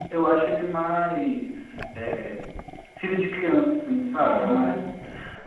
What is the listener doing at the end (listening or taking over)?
listening